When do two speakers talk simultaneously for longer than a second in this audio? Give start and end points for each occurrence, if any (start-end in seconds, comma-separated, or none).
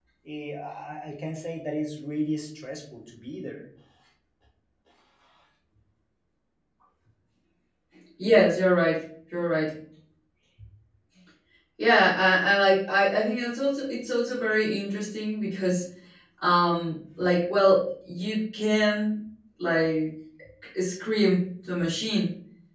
none